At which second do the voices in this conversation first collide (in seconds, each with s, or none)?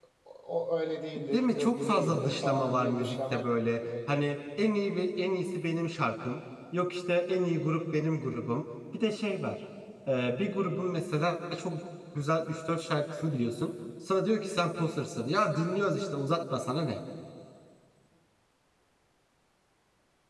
1.1 s